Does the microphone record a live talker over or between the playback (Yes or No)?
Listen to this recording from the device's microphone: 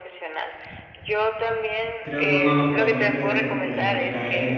Yes